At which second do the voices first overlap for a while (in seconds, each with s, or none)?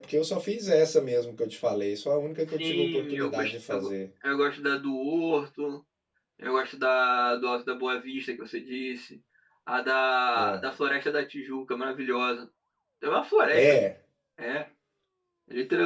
2.6 s